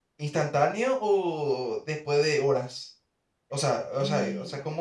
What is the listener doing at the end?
listening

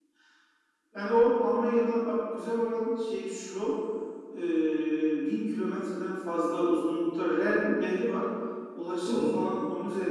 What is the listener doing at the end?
listening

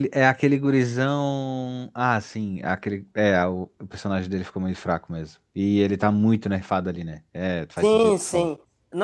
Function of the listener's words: taking over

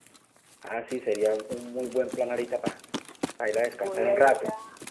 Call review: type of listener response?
taking over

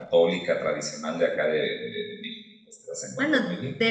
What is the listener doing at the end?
taking over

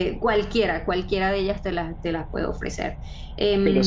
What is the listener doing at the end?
taking over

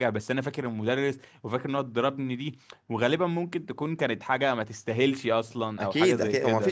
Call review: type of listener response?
taking over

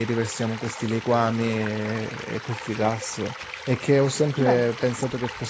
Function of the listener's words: listening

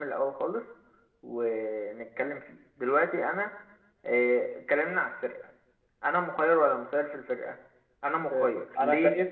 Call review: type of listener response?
taking over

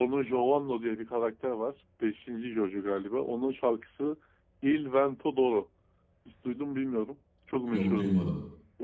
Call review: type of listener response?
listening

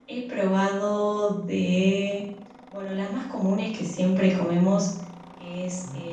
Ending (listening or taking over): listening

